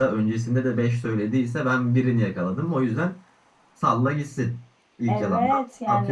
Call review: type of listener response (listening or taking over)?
taking over